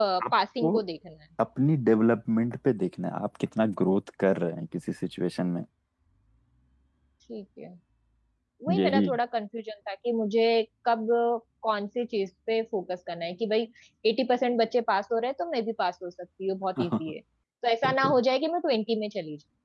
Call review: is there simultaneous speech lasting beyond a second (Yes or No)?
No